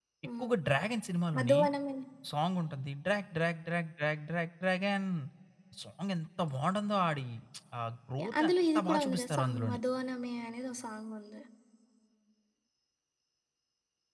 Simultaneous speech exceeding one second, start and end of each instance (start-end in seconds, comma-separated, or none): 8.4-9.8